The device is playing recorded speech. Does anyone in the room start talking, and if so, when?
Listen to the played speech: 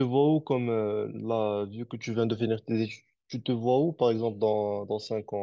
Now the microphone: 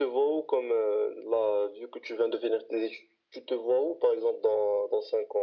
none

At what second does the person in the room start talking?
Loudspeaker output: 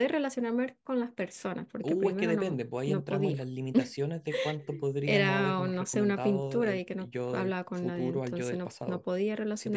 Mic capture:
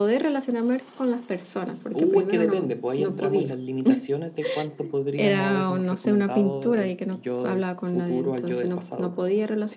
none

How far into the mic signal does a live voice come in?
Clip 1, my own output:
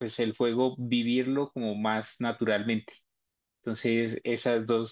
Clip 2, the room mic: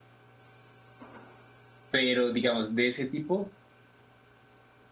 1.9 s

